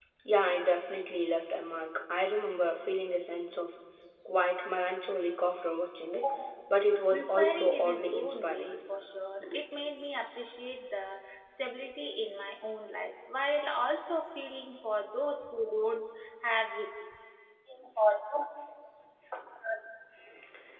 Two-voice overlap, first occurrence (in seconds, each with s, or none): 7.1 s